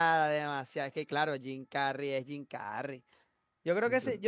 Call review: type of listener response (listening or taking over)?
listening